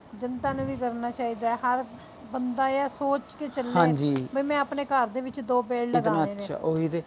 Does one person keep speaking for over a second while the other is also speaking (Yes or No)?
No